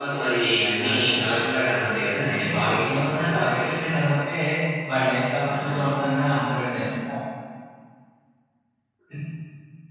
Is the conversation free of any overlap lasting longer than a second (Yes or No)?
No